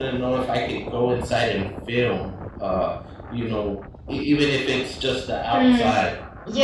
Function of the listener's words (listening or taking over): taking over